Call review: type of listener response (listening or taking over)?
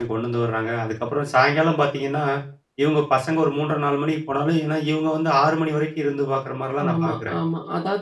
taking over